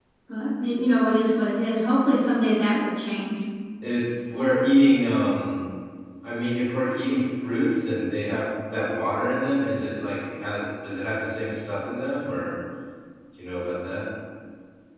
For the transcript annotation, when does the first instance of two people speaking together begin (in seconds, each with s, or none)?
none